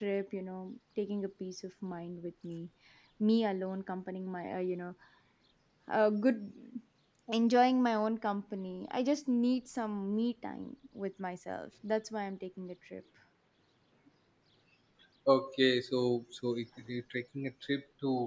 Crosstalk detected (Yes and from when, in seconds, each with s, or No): No